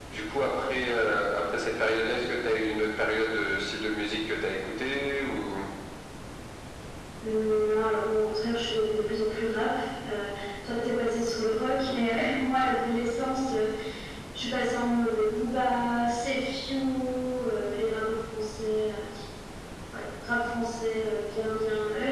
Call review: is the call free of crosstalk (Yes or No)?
Yes